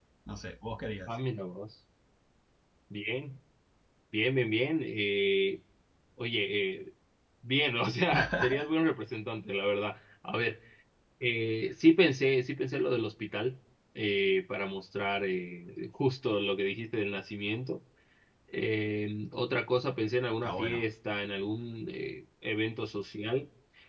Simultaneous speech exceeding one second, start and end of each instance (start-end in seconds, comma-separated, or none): none